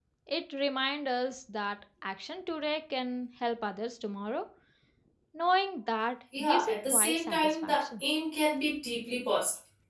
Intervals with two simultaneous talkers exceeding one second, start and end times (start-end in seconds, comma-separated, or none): 6.4-7.9